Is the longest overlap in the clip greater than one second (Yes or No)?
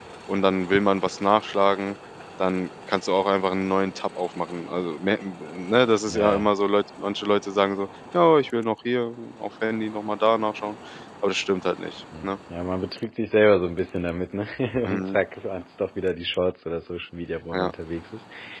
No